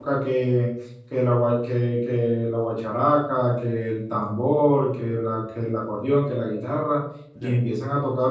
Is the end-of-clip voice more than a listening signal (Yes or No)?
No